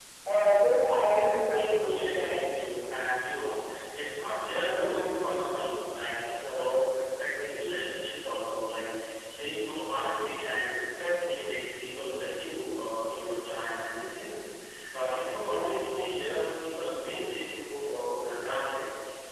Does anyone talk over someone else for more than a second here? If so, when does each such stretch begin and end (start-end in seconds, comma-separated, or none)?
1.1-2.5